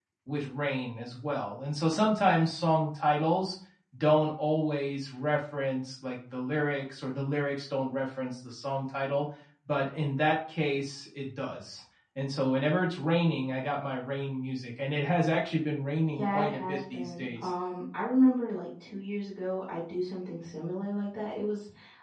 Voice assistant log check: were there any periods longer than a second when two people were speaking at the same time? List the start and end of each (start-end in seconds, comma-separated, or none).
16.2-17.5